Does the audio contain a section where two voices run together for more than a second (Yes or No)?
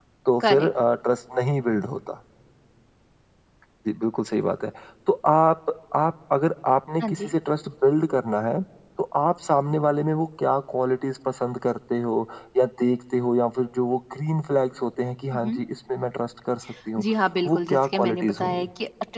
Yes